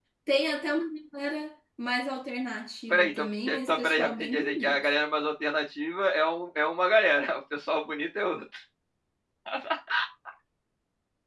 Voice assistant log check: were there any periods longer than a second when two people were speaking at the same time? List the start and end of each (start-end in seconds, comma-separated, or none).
2.9-4.8